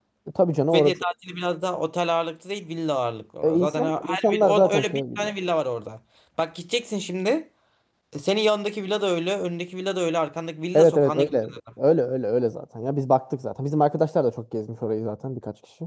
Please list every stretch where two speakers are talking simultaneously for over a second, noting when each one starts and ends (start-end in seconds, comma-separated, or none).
3.4-5.3